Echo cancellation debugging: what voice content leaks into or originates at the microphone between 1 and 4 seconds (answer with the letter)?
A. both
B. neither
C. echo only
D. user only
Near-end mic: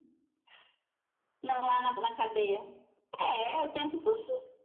C